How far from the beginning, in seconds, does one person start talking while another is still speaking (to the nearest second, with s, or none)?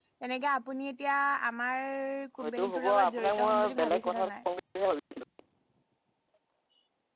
2 s